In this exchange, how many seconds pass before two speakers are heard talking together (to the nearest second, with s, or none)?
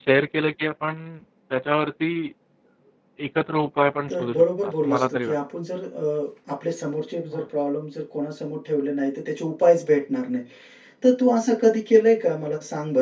4 s